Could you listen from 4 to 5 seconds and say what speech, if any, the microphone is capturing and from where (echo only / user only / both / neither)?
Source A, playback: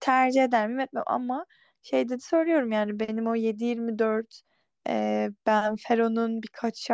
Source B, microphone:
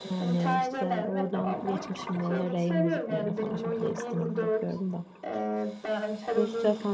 both